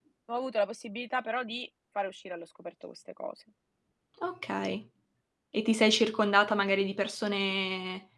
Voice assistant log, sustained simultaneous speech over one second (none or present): none